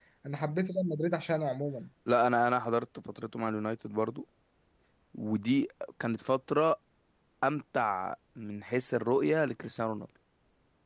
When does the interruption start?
none

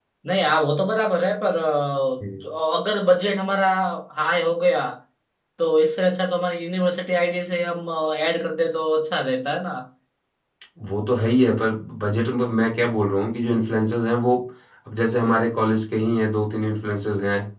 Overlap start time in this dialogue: none

